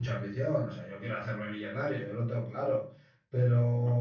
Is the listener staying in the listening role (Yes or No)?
Yes